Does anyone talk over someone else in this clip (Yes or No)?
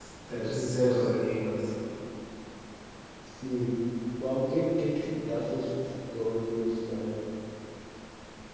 Yes